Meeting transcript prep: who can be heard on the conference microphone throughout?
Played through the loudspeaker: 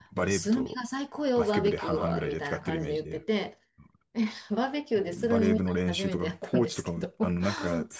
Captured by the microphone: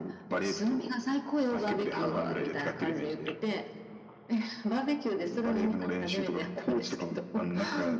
both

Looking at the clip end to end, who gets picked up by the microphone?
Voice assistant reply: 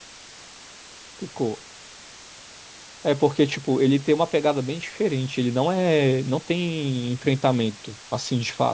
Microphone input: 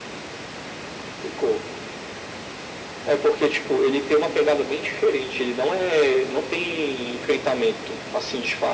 echo only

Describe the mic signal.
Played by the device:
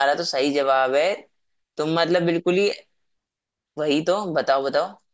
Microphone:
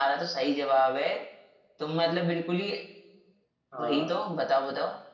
both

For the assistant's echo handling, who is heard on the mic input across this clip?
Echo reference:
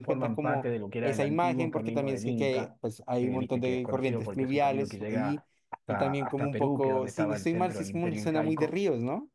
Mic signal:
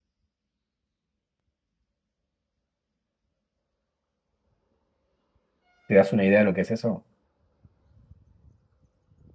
user only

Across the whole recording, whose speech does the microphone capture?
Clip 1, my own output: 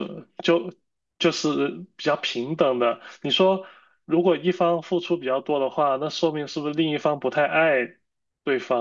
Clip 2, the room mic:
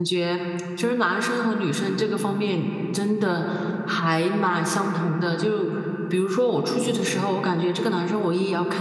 user only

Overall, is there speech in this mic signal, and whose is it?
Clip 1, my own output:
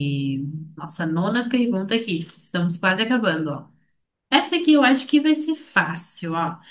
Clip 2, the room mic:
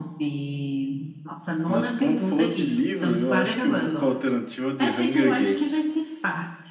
both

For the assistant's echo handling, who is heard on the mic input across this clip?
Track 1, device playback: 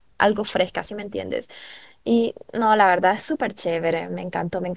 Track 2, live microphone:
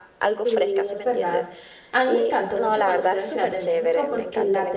both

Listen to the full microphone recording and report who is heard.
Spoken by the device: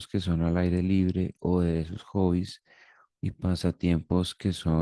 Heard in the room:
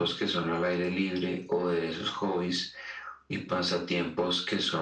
echo only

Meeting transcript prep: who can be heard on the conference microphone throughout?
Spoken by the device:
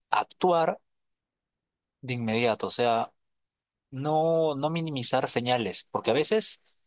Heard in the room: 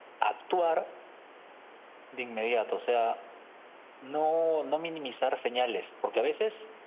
echo only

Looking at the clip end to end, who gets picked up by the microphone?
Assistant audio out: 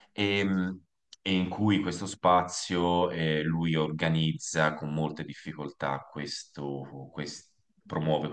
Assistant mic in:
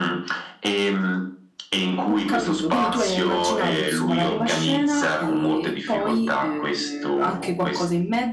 both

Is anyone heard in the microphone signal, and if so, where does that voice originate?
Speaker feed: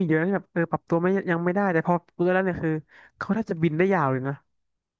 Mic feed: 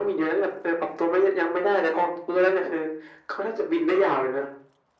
echo only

